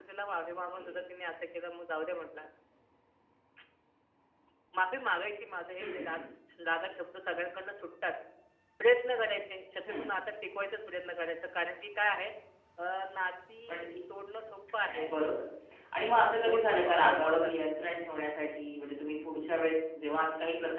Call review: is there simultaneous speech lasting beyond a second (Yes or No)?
Yes